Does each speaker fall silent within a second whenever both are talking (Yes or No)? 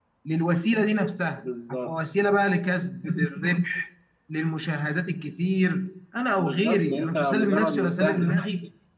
No